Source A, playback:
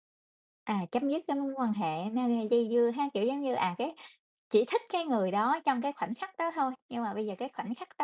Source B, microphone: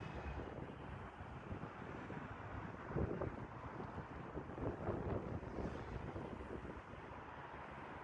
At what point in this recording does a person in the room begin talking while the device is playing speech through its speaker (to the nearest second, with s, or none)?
none